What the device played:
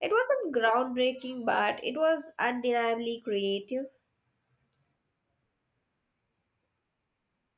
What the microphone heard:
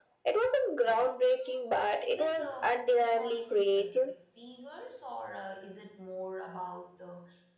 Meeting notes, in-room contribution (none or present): present